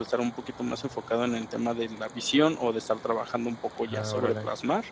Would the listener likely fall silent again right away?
Yes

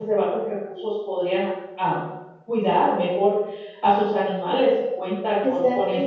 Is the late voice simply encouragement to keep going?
Yes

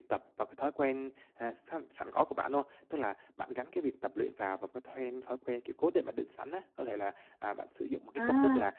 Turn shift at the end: No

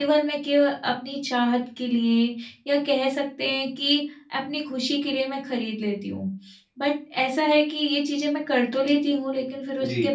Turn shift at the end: No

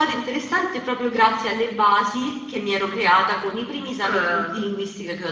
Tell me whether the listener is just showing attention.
Yes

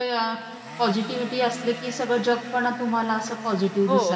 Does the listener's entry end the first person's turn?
Yes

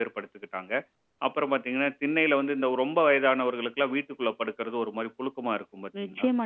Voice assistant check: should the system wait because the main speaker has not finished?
No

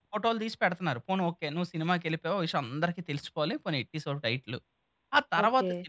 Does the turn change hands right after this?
No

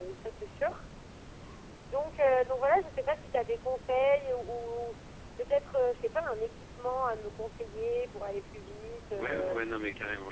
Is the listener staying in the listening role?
No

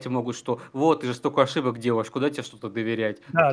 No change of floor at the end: No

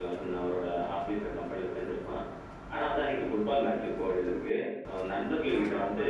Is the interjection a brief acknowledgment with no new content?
Yes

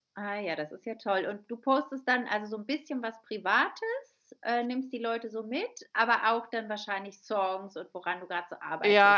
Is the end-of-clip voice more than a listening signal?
Yes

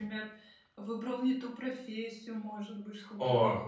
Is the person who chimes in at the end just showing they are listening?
No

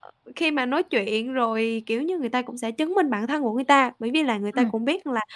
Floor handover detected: No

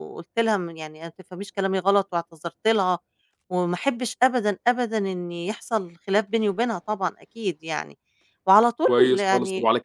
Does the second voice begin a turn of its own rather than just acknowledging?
Yes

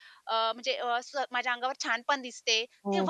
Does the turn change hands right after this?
Yes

